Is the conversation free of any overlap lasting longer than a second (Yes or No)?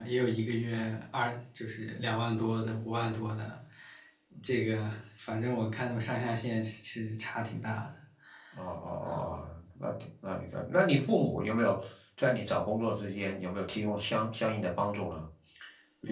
Yes